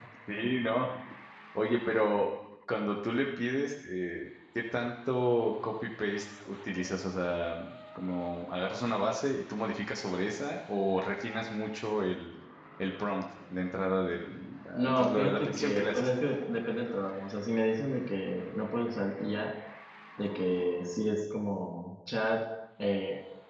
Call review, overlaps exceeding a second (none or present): present